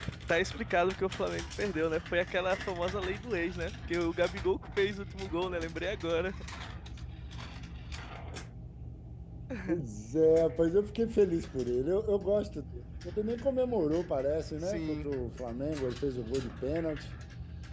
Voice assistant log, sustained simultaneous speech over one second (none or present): none